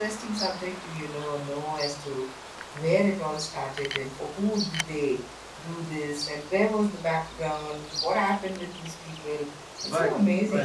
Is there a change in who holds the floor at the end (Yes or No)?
Yes